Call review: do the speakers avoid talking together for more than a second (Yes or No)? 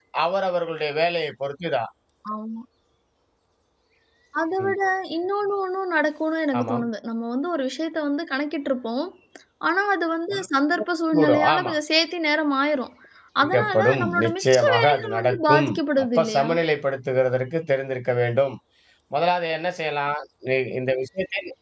No